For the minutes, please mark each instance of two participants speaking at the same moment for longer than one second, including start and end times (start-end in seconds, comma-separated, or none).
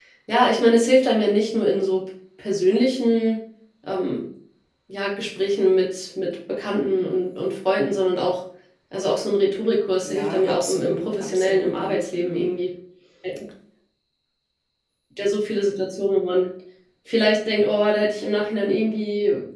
10.0-12.6